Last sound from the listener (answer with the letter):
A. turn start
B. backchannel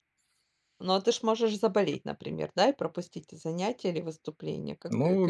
A